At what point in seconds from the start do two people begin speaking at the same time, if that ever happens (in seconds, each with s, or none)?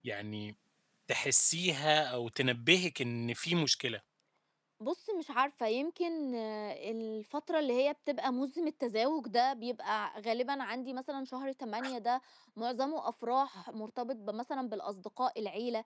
none